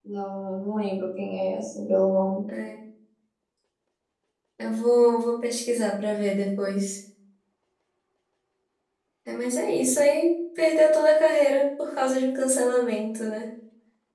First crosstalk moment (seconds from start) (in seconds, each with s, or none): none